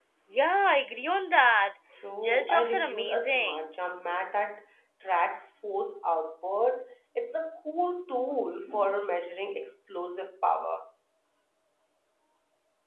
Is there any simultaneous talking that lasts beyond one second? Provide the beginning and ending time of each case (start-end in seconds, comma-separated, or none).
2.2-3.7